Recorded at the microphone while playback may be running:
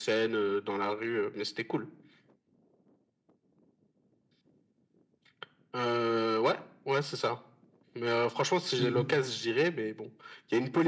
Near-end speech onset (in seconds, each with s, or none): 8.8 s